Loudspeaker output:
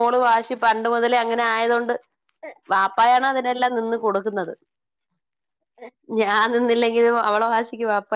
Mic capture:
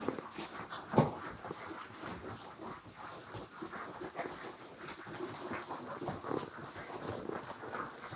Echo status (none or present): none